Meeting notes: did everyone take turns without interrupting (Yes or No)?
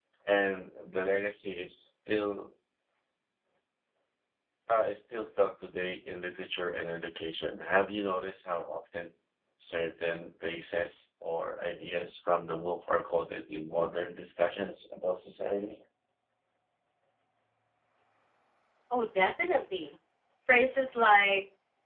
Yes